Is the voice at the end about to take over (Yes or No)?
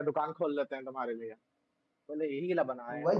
Yes